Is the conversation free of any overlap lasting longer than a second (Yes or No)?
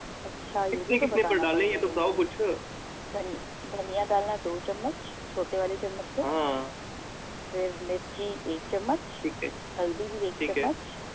No